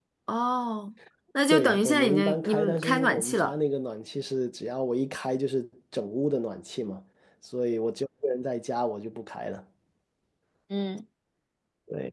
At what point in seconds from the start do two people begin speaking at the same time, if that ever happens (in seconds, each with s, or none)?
1.5 s